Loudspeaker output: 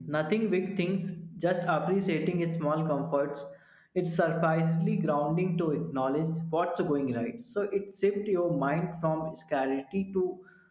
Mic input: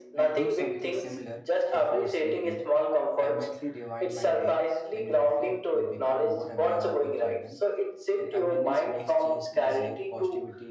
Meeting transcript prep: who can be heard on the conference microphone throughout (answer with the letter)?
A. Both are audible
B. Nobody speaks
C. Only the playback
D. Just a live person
A